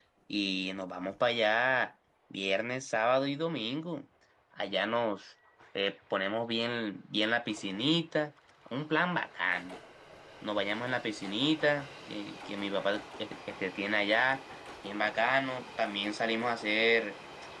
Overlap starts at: none

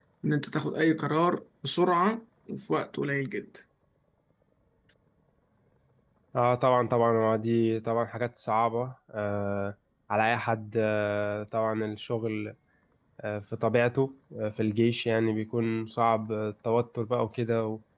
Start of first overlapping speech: none

